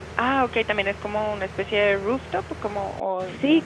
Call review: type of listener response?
taking over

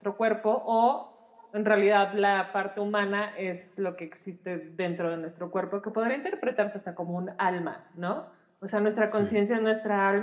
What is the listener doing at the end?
listening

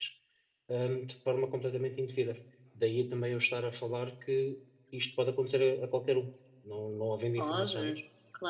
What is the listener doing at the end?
taking over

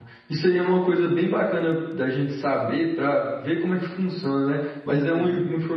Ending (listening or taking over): listening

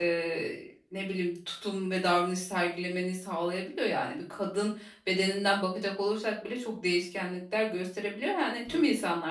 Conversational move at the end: listening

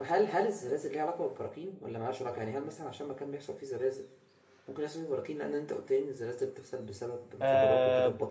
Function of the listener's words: taking over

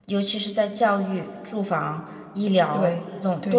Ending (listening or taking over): listening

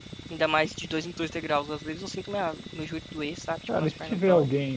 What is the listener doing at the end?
taking over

